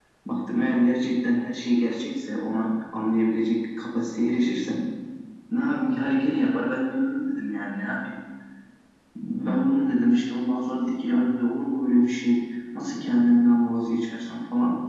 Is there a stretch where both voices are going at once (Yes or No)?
No